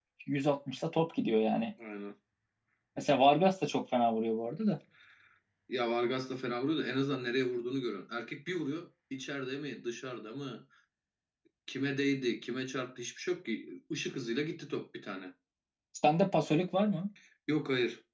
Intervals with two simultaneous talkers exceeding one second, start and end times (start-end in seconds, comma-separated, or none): none